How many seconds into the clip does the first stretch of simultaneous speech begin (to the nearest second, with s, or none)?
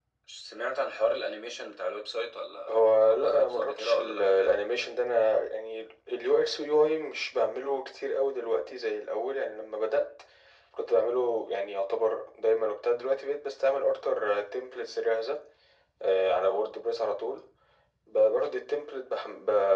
3 s